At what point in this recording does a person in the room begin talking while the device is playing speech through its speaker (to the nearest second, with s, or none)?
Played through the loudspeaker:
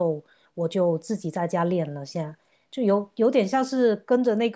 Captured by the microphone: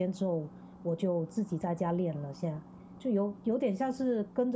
none